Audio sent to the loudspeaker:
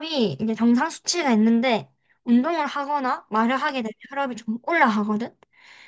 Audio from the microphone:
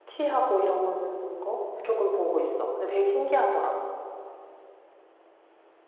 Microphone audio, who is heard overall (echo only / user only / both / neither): user only